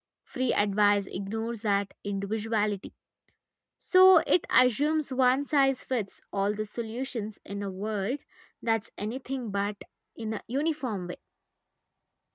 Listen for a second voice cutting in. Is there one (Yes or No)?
No